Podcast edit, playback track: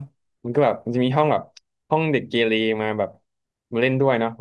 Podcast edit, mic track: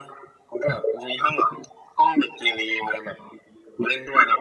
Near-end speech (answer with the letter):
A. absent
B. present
A